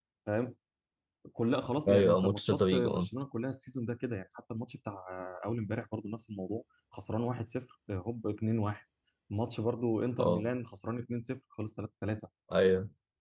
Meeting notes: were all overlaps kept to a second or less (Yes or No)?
No